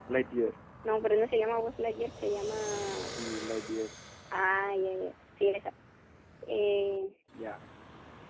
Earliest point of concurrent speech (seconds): none

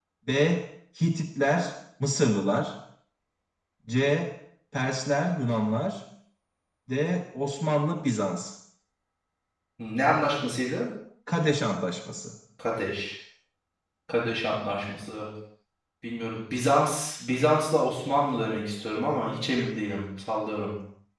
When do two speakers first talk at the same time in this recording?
none

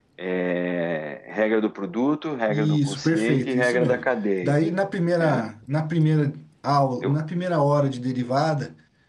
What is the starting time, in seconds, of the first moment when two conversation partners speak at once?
2.5 s

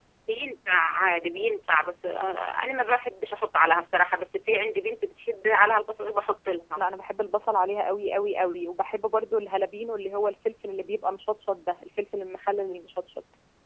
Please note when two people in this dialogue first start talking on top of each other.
none

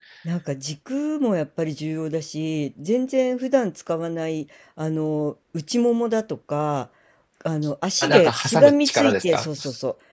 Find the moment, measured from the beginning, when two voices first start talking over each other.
8.0 s

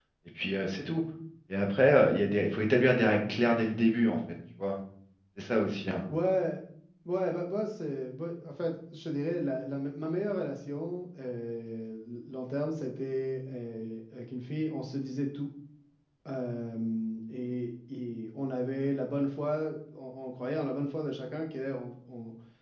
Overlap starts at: none

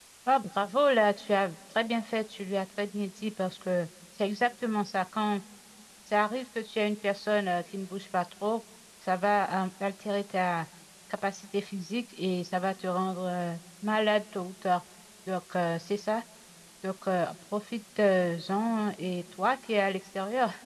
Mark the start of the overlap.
none

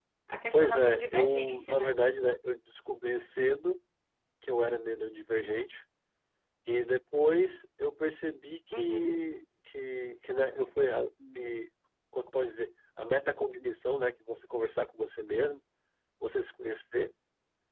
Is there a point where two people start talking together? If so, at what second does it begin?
0.5 s

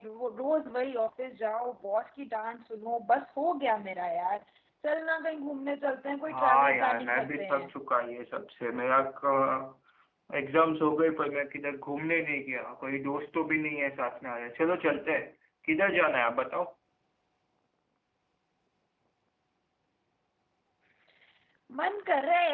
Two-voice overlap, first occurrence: 6.3 s

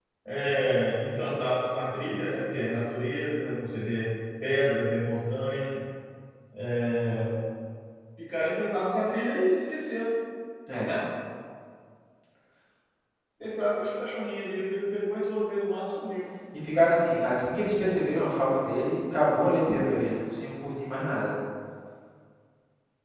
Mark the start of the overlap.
none

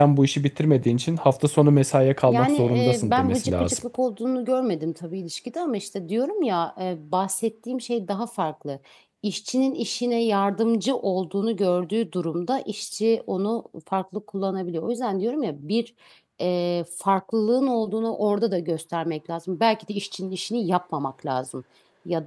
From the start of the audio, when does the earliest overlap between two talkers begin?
2.3 s

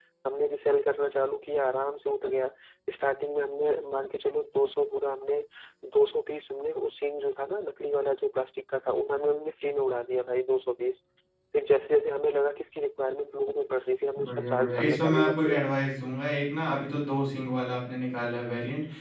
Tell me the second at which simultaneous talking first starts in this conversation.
14.2 s

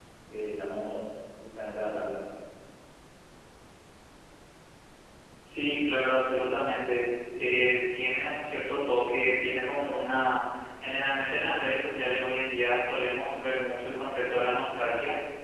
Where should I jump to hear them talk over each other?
none

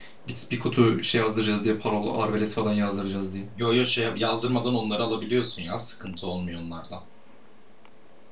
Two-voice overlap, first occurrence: none

